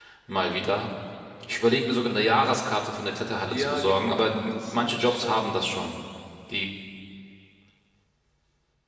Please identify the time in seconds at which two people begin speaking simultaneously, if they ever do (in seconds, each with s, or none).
3.5 s